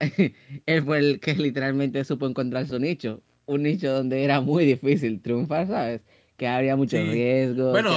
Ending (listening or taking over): taking over